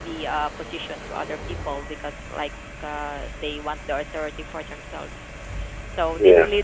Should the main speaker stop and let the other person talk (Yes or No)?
No